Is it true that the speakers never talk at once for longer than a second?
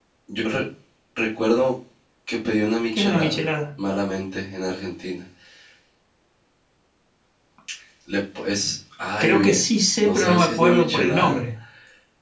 No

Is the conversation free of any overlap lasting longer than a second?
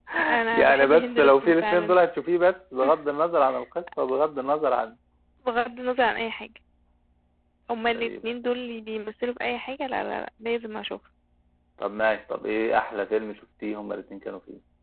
No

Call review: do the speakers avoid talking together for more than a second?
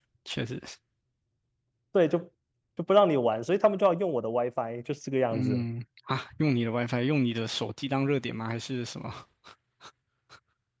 Yes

